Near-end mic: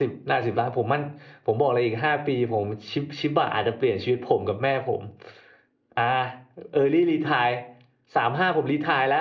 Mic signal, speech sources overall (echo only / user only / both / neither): user only